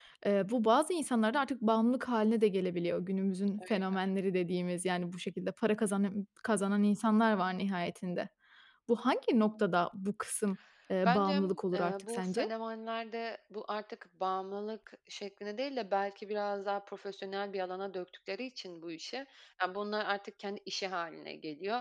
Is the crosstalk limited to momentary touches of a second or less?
No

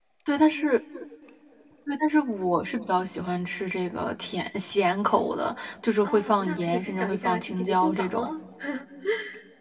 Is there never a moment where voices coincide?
No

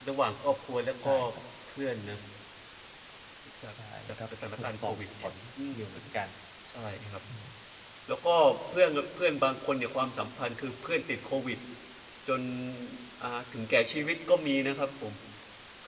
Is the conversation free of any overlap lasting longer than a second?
No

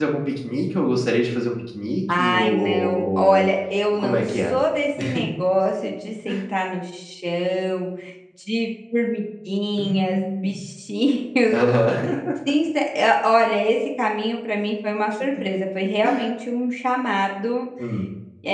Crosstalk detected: Yes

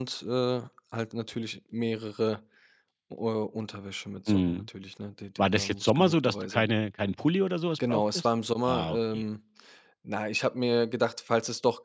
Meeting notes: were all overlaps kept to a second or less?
No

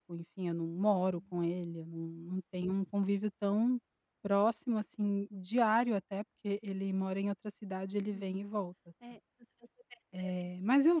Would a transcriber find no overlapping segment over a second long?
Yes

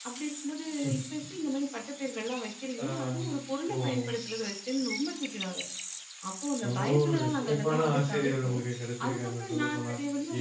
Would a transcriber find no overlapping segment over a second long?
No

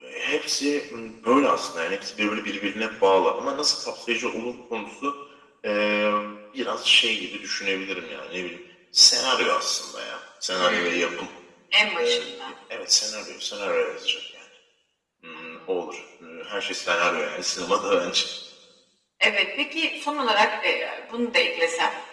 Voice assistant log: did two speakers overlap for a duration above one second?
No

